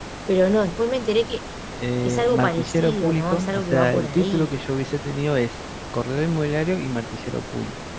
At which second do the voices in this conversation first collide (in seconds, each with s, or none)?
2.0 s